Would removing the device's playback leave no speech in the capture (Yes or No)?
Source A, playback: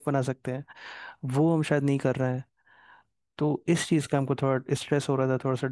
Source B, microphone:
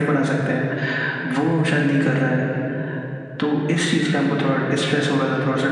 Yes